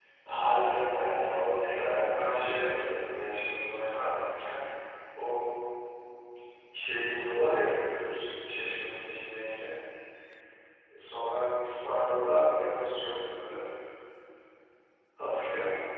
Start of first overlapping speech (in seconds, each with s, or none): 1.5 s